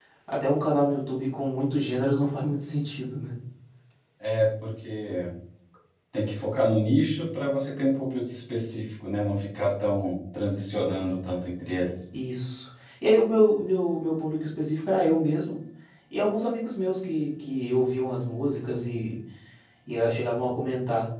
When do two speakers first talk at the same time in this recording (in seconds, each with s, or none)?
none